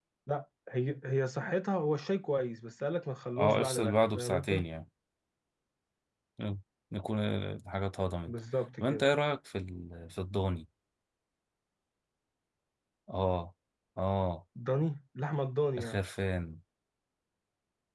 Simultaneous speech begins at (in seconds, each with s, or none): 3.4 s